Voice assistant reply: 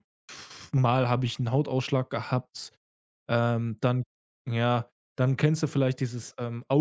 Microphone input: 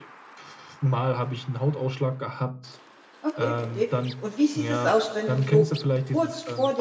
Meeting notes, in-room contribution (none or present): present